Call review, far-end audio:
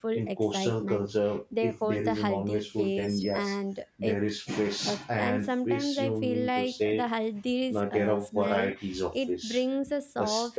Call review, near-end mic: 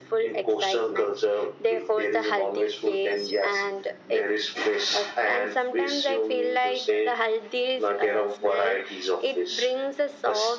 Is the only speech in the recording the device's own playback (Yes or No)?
Yes